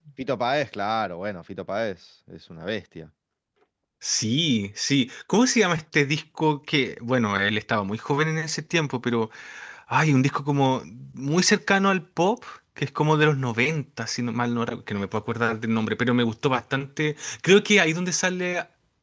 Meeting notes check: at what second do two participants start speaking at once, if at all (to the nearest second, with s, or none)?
none